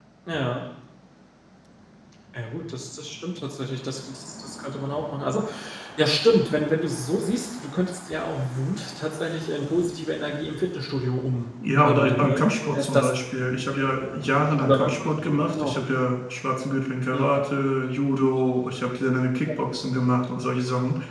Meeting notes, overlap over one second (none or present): present